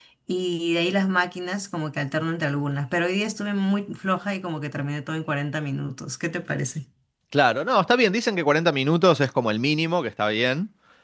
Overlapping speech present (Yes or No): No